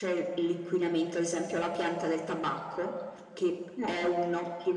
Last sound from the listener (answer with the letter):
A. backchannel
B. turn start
A